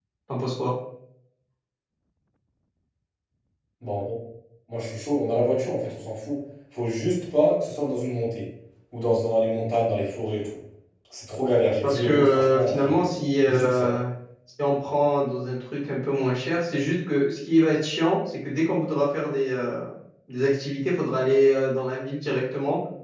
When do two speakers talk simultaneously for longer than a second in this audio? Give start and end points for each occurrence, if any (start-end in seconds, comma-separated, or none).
11.8-13.0